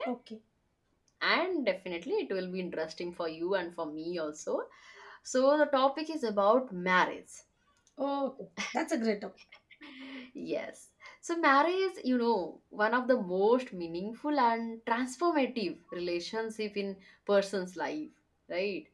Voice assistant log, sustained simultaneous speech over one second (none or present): none